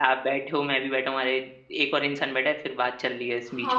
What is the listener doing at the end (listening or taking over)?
taking over